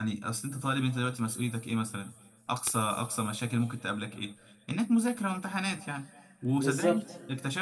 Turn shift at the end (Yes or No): No